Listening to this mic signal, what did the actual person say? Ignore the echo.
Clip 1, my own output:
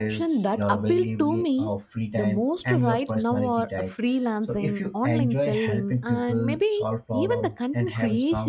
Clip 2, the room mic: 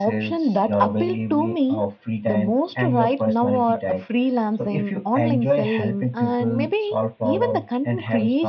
none

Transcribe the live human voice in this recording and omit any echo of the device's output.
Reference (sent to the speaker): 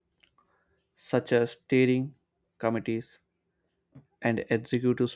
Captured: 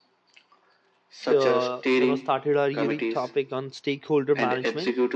uh, you know started our unique topic on stakeholder management

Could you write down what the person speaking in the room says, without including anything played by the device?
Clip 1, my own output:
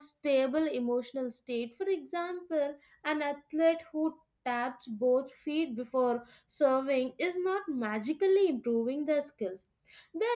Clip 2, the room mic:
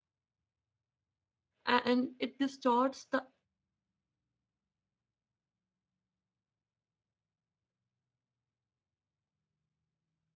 A- and it distorts the

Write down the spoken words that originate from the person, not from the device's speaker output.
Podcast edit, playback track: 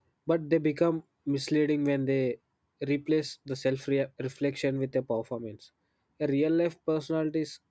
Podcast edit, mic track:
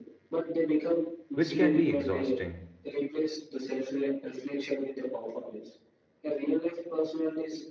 which can be exhausting.

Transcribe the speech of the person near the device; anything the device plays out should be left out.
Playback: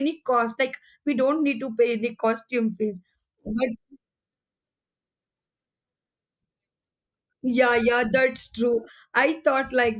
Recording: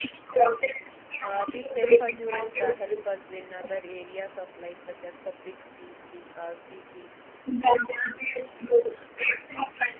Uh, this self assurance uh, help us in other areas of life such as public speeching, uh, speaking,

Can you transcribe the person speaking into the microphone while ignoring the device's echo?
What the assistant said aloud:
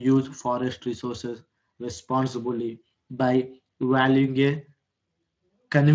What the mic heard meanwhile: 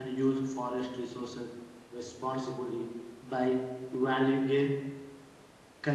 none

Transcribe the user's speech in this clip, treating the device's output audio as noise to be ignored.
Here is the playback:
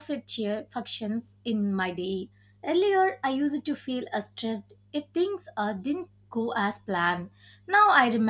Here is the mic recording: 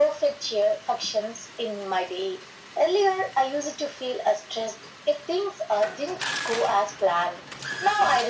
none

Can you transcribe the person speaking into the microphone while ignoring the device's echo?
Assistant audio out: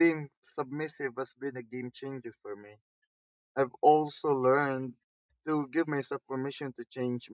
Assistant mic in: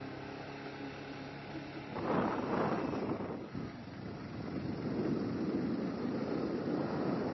none

